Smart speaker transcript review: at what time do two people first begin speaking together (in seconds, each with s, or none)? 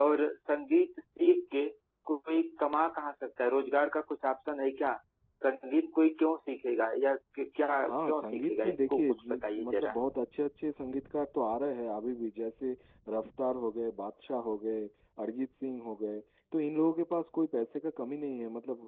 7.9 s